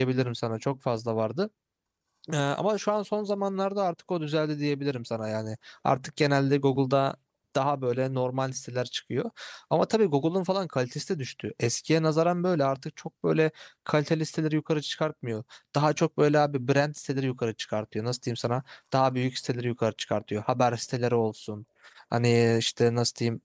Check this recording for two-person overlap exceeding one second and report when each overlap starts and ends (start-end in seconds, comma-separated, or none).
none